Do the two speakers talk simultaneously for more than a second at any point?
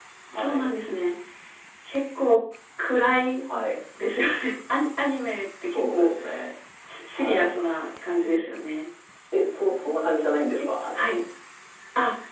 No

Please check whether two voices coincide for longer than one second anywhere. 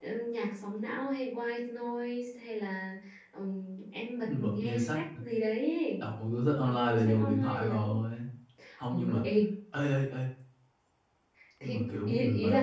Yes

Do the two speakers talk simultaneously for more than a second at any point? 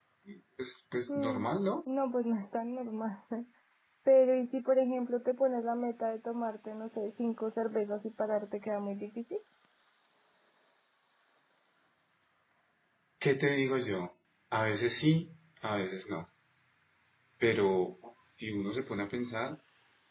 No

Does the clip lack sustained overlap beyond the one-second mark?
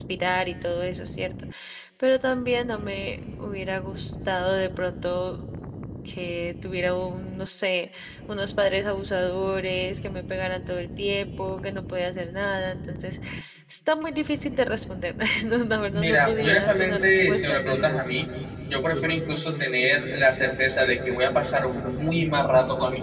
No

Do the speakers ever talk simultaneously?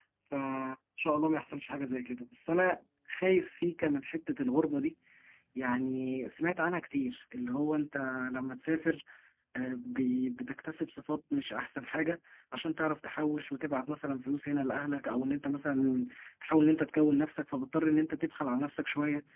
No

